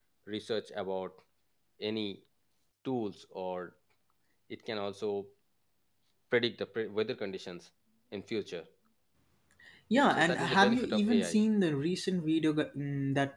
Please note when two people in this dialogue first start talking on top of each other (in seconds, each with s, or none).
10.1 s